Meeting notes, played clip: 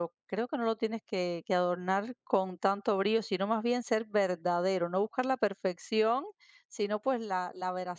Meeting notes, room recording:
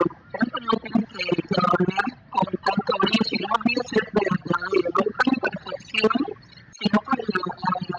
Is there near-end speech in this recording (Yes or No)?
No